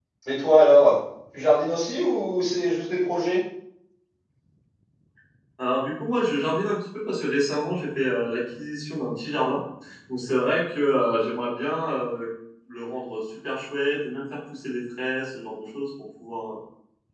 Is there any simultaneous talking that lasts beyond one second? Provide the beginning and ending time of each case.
none

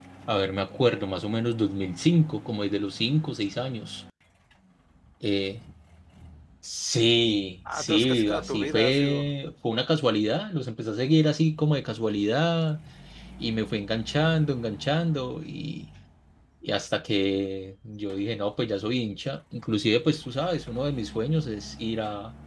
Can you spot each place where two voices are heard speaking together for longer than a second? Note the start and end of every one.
7.7-9.2

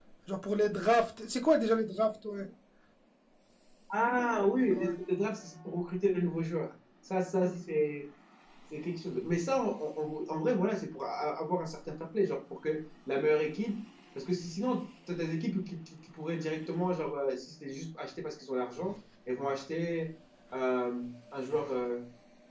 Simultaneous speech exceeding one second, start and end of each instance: none

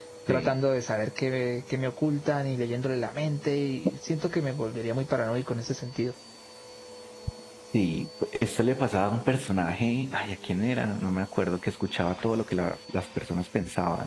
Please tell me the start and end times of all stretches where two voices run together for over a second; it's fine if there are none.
none

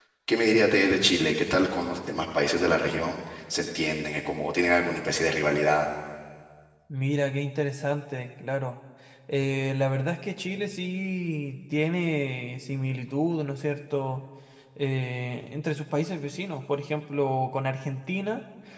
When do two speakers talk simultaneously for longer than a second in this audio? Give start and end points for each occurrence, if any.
none

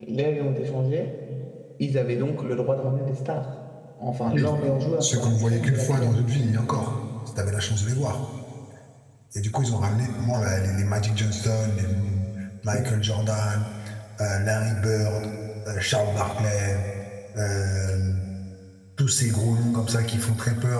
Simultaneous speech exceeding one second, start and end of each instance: 5.0-6.3

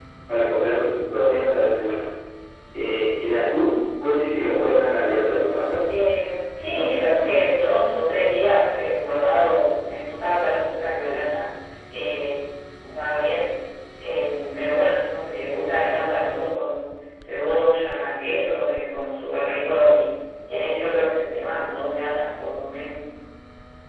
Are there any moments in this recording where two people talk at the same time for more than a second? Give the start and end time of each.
none

